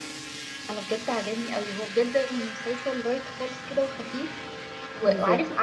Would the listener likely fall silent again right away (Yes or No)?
Yes